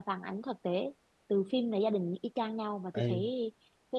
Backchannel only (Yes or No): Yes